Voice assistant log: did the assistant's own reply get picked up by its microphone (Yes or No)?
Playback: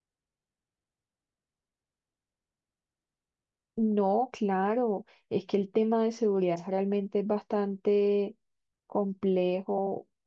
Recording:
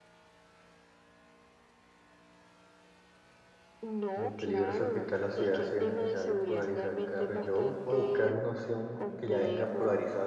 Yes